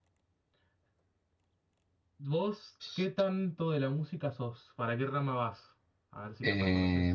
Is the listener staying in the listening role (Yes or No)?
No